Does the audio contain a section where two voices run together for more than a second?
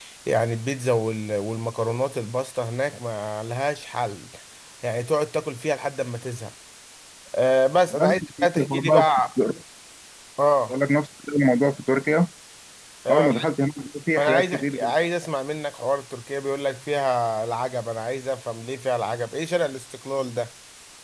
Yes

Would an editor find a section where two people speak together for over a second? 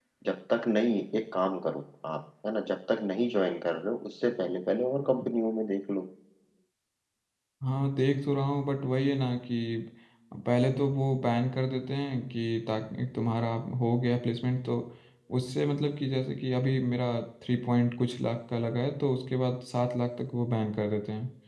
No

